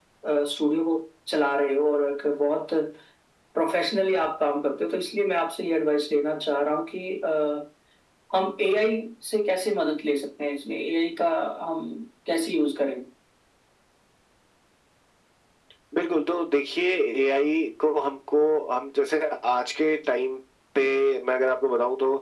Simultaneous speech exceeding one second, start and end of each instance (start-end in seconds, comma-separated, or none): none